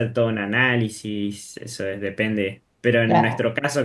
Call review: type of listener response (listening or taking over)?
listening